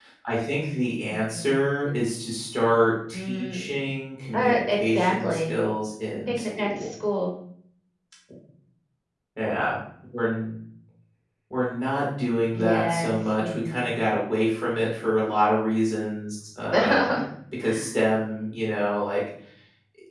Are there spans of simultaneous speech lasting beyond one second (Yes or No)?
Yes